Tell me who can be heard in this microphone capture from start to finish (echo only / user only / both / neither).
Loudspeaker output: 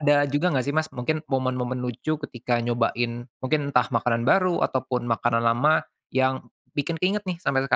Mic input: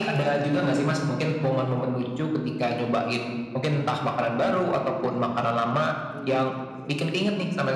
both